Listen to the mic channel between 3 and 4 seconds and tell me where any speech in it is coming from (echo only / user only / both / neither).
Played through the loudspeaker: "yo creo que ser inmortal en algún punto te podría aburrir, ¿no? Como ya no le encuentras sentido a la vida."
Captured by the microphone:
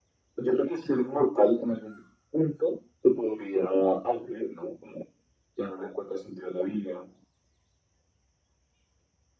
echo only